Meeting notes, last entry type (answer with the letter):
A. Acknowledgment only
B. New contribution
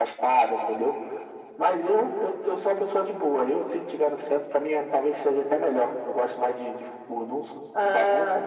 B